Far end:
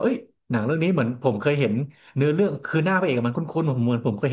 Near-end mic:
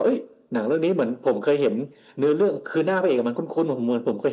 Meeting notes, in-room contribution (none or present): none